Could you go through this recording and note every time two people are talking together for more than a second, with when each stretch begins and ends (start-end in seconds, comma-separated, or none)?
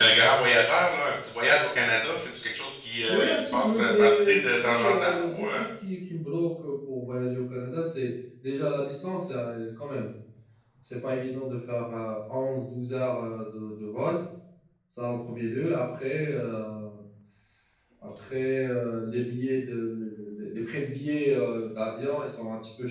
3.1-5.6